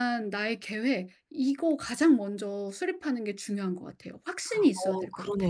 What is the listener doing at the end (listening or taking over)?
taking over